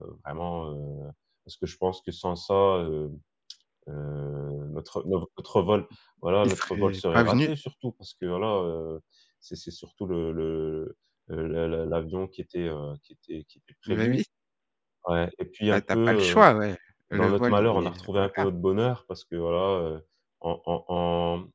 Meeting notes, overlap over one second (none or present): present